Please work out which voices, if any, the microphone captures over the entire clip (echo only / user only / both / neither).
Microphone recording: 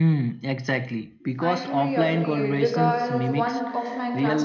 both